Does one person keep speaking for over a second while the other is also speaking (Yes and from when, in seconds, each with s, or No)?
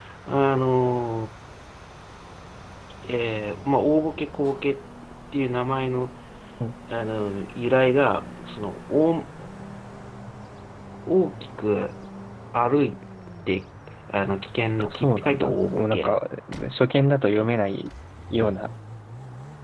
Yes, from 14.8 s